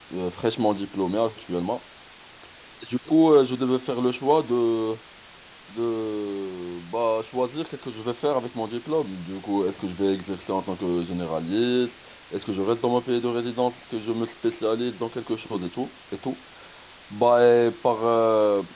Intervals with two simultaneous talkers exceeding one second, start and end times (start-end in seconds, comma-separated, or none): none